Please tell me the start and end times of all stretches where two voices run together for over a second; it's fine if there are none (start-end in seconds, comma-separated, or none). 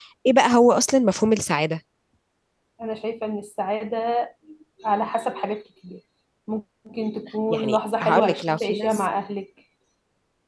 7.5-9.0